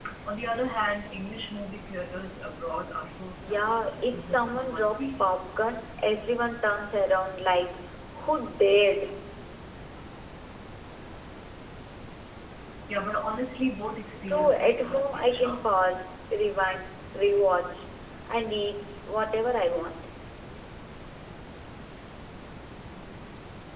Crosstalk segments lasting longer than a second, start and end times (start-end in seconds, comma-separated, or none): 3.4-5.2, 14.3-15.6